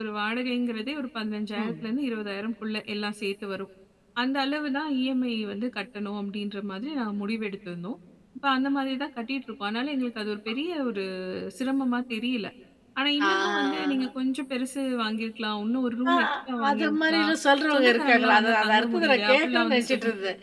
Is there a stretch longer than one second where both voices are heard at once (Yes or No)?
Yes